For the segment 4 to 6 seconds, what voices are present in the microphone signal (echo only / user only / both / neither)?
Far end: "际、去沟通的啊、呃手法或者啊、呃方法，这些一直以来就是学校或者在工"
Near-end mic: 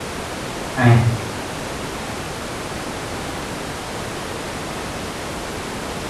neither